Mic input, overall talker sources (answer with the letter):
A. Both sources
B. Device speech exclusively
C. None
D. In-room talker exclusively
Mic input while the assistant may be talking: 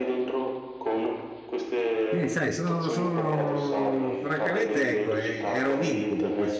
A